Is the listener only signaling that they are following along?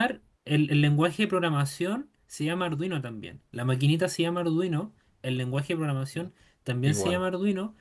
Yes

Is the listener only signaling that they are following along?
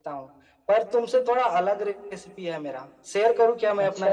No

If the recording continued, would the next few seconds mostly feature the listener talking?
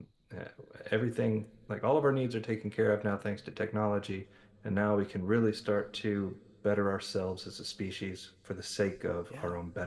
No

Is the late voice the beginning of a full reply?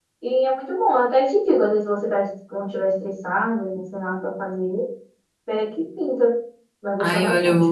Yes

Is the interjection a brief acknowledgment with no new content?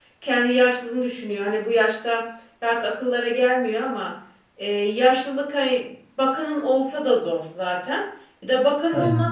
Yes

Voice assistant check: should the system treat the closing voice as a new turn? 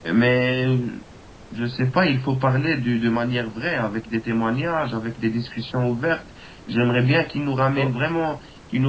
No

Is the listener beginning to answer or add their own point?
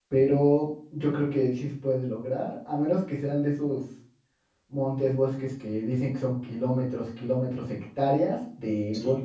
No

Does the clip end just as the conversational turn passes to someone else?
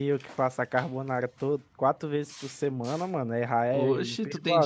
Yes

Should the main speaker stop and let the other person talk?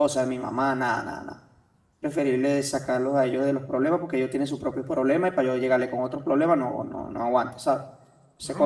Yes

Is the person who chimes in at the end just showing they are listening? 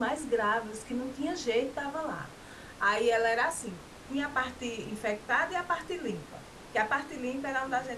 Yes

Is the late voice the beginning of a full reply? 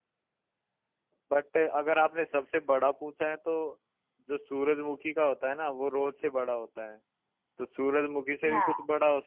No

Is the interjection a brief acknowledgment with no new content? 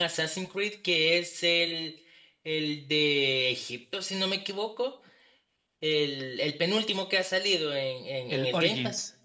Yes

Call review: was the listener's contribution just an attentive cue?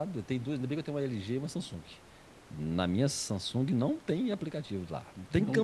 Yes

